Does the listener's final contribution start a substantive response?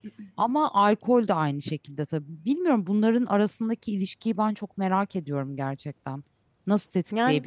No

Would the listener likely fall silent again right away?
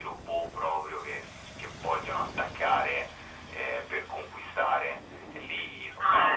No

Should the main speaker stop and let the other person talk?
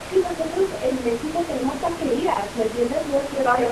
No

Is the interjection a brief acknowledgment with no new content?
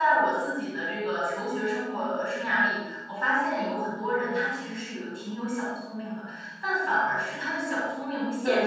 No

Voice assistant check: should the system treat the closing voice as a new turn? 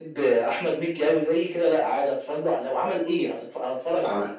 Yes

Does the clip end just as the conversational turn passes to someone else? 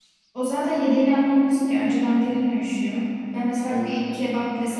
No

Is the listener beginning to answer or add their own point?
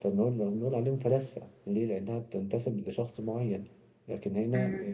No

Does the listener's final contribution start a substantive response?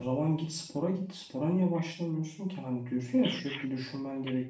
No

